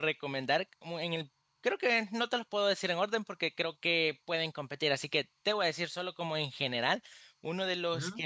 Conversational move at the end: listening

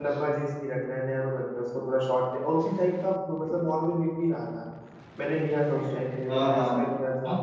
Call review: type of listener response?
taking over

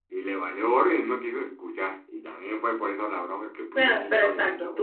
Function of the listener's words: taking over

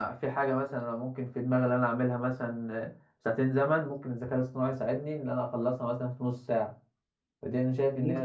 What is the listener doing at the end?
listening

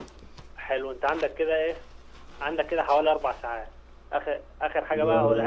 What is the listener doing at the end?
listening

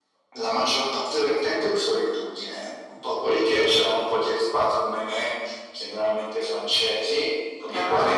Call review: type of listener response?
listening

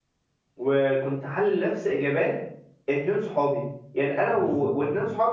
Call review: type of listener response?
listening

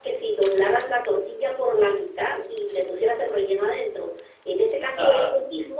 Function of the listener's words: listening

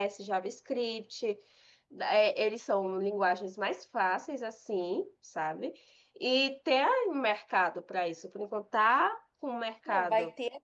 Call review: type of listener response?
taking over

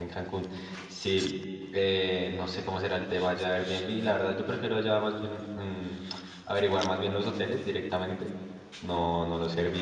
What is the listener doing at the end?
listening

